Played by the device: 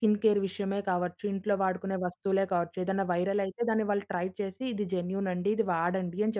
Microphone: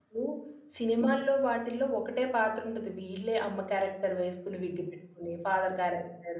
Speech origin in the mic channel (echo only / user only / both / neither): user only